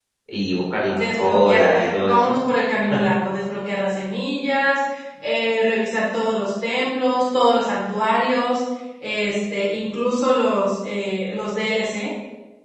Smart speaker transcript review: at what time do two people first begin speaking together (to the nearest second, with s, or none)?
1 s